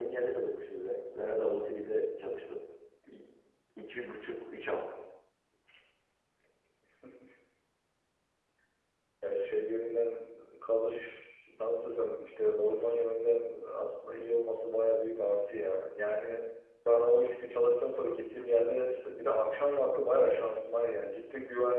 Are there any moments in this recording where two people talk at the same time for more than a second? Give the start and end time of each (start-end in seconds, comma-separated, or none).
none